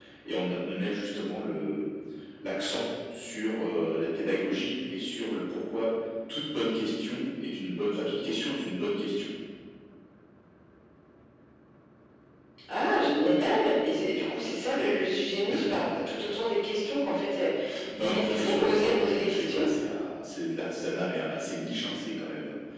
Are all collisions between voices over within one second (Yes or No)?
No